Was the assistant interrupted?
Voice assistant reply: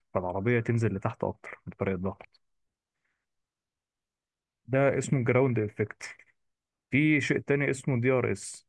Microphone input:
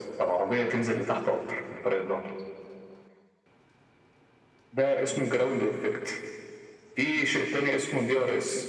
No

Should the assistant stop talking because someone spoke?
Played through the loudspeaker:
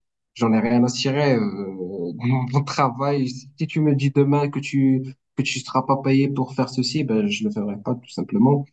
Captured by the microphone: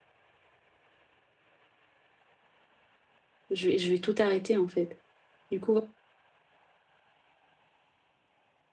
Yes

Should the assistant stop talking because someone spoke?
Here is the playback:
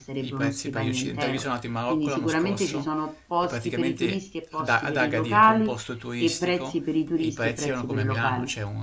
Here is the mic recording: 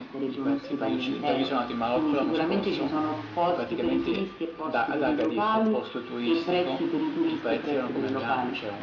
No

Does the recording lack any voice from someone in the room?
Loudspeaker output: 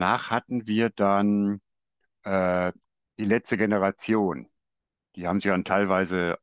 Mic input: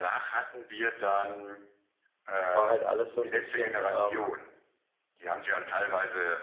No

